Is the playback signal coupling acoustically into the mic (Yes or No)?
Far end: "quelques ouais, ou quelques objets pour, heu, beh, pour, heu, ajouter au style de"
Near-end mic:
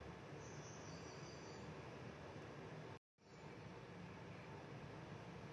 No